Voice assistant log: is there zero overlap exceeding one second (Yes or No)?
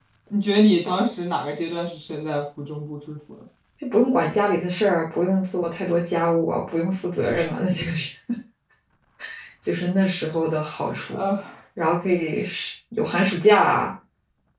Yes